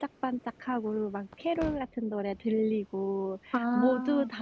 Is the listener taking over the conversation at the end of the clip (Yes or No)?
No